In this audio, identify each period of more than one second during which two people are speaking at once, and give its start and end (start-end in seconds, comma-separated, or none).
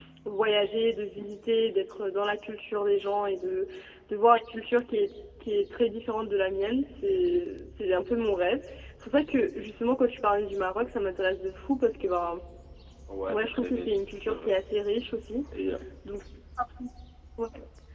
13.3-14.5